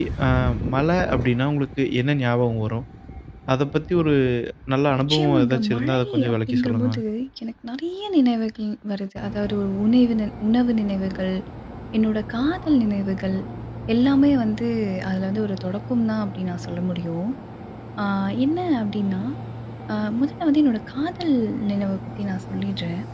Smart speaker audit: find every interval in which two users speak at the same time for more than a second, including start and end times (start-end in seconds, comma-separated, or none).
5.1-7.0